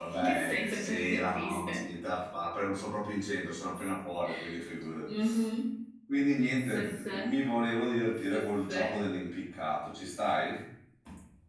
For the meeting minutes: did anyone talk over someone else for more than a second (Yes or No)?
Yes